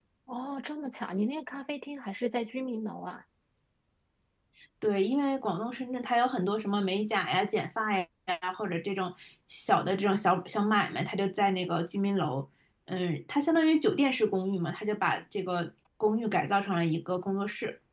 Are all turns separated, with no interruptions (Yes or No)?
Yes